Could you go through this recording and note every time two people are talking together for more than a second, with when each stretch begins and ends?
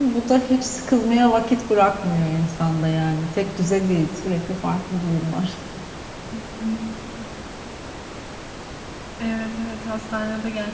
none

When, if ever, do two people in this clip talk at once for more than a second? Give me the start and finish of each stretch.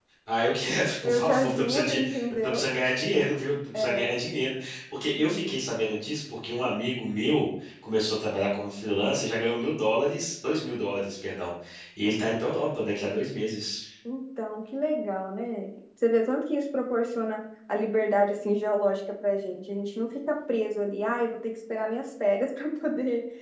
1.0-2.6

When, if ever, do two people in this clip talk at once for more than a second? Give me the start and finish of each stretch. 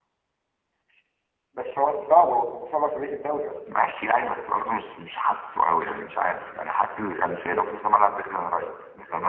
none

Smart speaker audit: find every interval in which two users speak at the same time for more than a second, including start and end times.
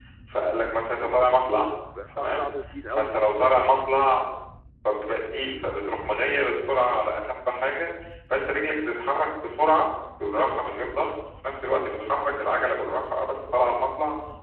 none

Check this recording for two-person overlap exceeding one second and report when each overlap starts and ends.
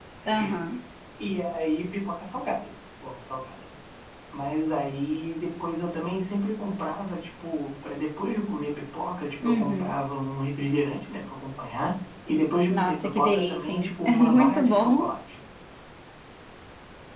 12.7-15.1

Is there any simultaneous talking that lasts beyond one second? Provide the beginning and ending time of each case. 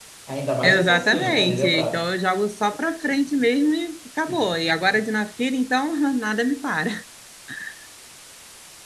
0.6-2.0

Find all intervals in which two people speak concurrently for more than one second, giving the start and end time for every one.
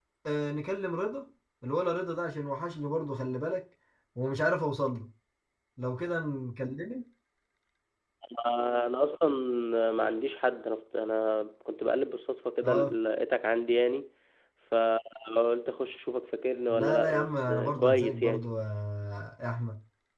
16.7-18.5

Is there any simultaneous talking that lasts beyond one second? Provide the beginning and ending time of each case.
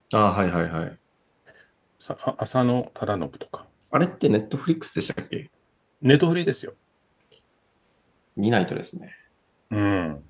none

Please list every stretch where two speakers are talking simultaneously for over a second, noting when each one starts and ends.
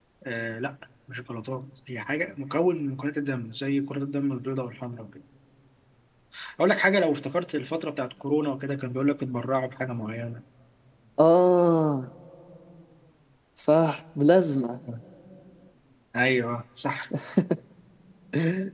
none

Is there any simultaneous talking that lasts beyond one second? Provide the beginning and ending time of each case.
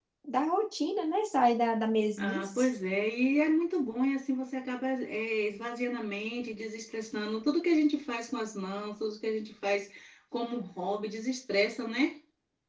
none

